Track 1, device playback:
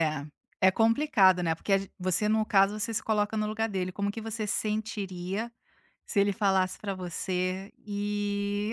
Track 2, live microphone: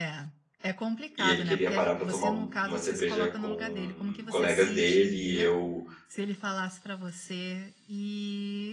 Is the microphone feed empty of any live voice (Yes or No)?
No